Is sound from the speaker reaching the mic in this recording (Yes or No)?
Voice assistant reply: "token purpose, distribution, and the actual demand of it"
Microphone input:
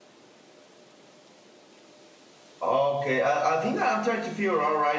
No